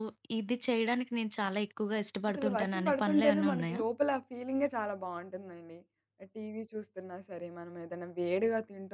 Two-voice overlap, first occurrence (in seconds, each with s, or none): 2.3 s